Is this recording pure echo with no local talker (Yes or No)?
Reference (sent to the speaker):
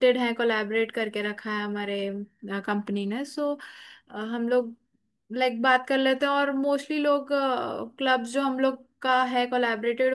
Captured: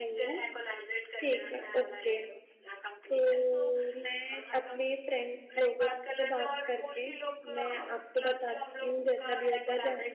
No